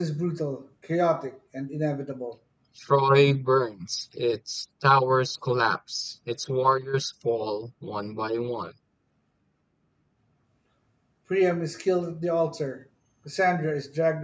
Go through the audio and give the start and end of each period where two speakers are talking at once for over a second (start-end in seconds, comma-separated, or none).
none